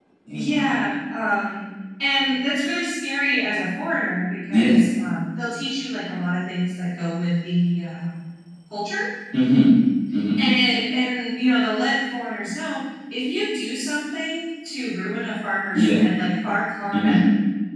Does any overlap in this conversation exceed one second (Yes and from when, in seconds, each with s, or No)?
No